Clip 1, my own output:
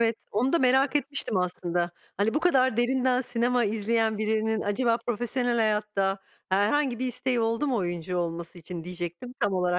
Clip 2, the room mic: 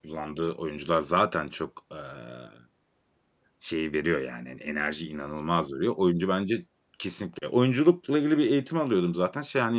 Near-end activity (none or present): present